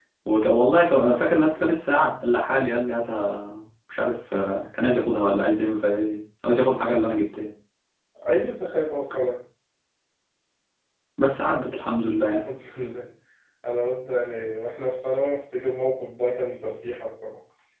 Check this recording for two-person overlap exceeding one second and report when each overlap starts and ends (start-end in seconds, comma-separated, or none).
none